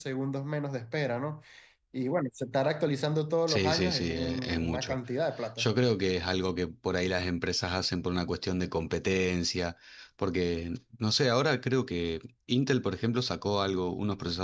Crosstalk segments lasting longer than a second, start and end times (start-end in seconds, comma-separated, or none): 3.5-5.0